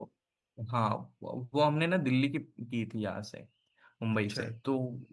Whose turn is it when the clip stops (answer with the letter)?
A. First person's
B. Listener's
A